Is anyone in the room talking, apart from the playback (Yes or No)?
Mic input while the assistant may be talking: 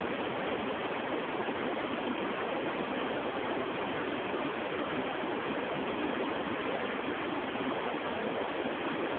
No